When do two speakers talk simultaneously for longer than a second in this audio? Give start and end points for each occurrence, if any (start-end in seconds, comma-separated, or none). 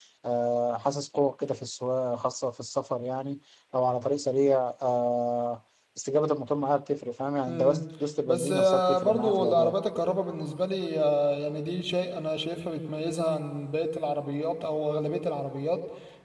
8.3-9.8